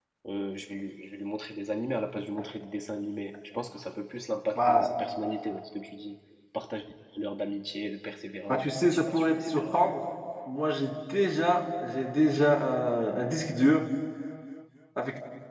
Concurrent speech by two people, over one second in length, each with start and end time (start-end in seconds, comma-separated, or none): 8.5-9.8